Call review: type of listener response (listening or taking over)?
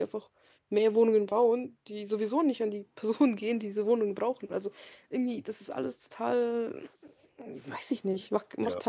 taking over